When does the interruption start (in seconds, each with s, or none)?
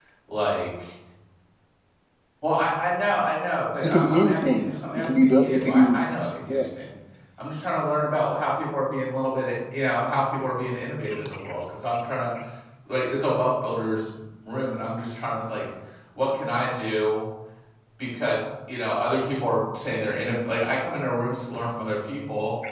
3.8 s